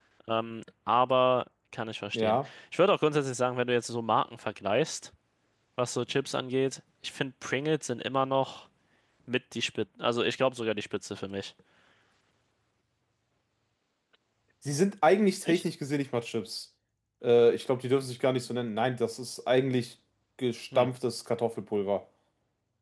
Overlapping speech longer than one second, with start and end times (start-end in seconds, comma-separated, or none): none